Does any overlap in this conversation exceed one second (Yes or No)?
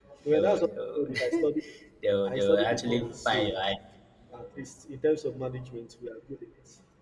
Yes